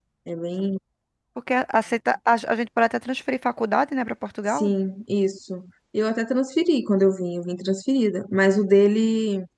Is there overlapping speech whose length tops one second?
No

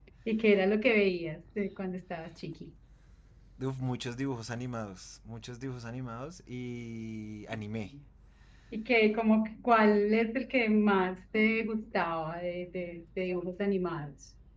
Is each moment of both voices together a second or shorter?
Yes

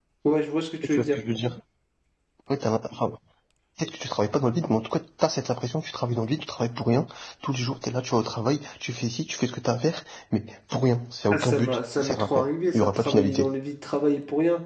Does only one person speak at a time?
No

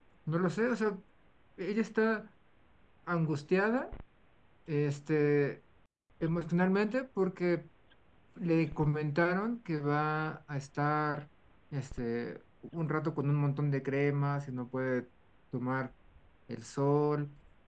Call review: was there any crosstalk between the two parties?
No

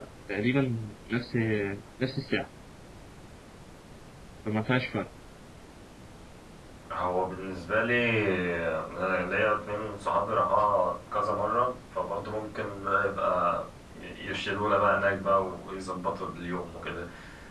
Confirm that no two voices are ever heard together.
Yes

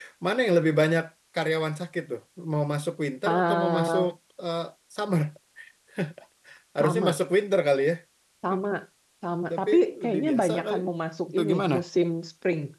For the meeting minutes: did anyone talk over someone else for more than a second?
Yes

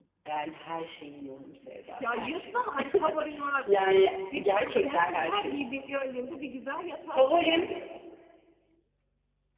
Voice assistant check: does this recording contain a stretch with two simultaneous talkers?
Yes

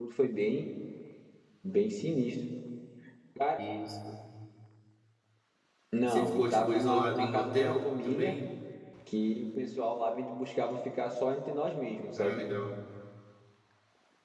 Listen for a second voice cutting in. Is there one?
Yes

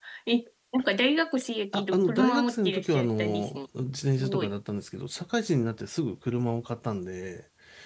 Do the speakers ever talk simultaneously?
Yes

